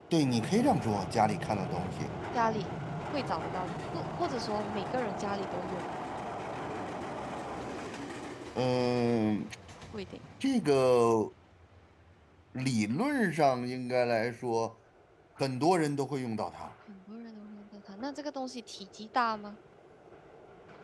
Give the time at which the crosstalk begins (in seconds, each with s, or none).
none